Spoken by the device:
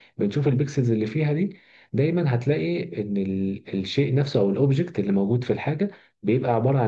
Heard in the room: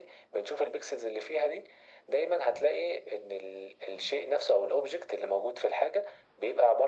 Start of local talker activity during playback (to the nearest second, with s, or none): none